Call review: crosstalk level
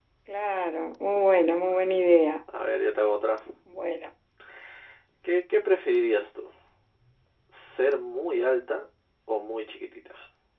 none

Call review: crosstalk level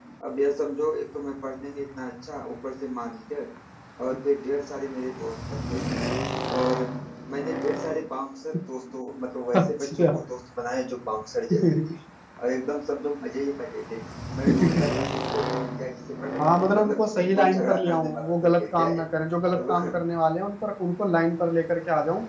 present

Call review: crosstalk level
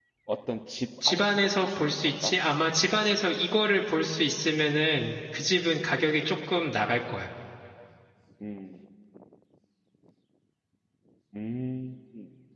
present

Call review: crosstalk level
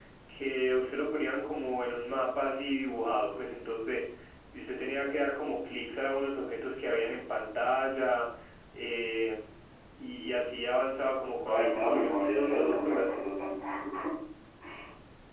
present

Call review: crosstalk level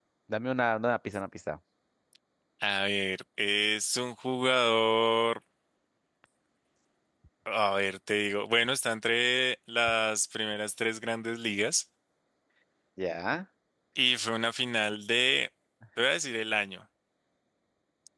none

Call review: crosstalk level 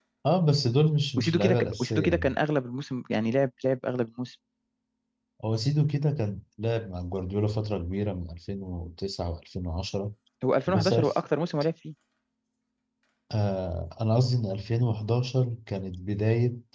present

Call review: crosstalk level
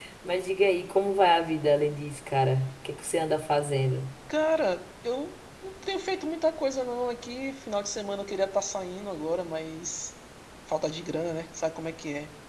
none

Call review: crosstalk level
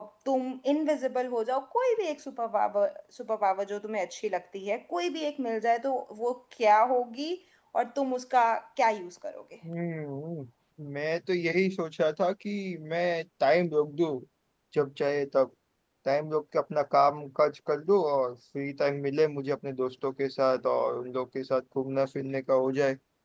none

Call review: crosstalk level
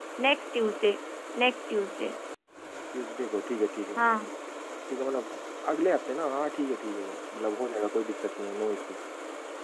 none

